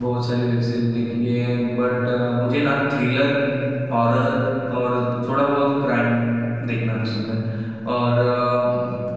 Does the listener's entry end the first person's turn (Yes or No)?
No